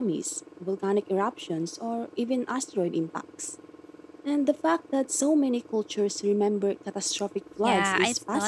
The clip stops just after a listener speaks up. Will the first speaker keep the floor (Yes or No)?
No